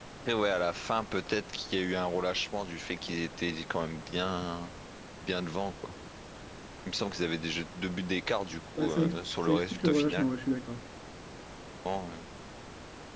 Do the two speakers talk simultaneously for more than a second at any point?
Yes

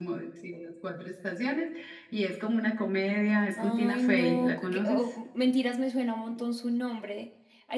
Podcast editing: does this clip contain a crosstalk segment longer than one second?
Yes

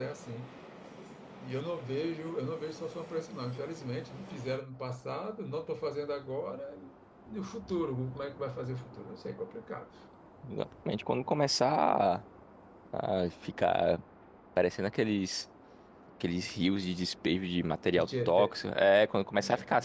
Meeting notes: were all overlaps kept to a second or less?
Yes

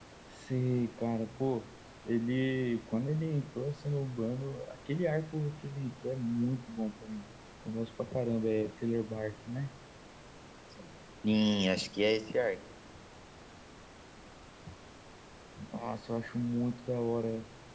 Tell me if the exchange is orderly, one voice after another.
Yes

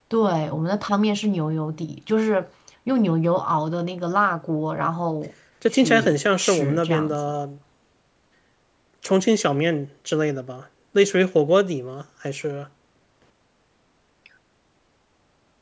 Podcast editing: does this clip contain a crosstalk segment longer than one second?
Yes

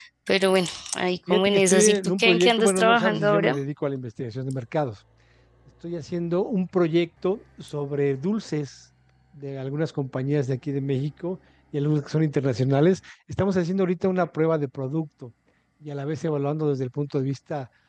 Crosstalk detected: Yes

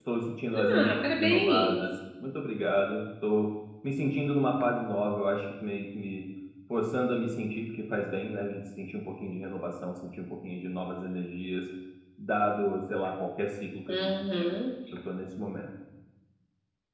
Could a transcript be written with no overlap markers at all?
No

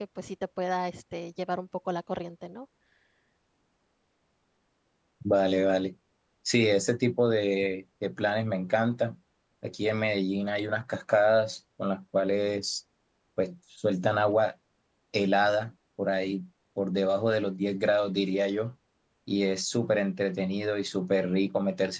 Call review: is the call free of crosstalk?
Yes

